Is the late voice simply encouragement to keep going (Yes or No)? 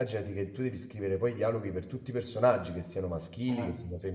Yes